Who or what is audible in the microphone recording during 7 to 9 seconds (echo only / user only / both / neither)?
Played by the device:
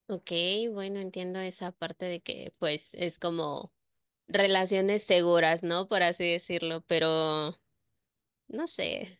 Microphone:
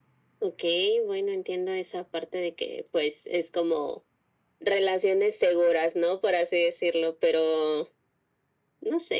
echo only